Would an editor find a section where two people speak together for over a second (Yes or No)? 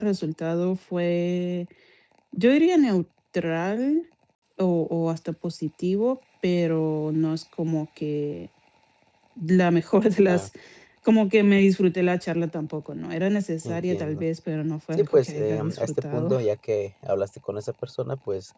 Yes